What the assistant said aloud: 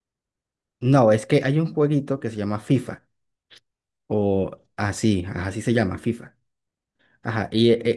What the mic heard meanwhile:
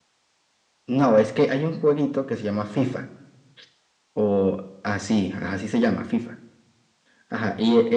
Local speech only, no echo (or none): none